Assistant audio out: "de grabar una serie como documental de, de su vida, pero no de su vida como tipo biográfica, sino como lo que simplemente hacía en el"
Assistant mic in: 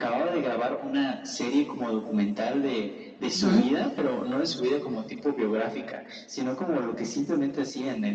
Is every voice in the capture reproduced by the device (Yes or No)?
No